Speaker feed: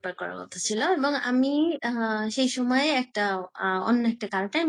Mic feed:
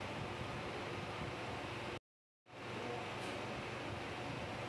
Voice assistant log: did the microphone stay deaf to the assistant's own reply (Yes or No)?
Yes